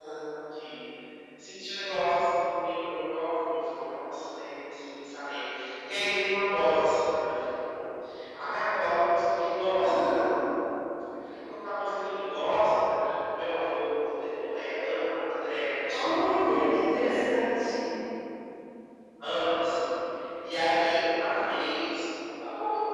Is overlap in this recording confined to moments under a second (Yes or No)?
Yes